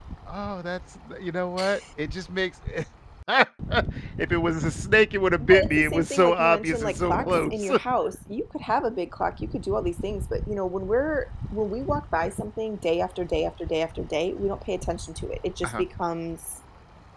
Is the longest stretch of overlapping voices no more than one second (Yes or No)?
No